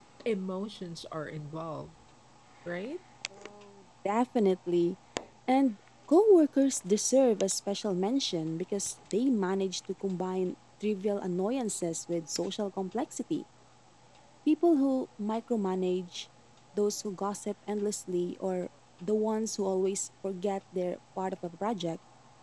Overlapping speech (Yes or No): No